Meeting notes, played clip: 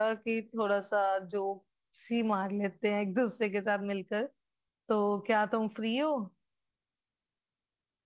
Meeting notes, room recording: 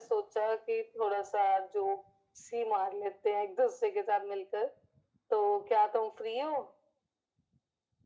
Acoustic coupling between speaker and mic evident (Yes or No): Yes